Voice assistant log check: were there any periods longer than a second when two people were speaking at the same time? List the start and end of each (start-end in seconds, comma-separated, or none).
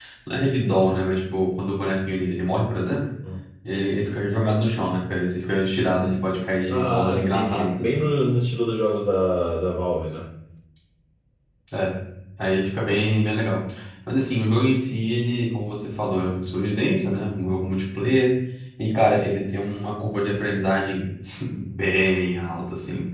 6.7-8.1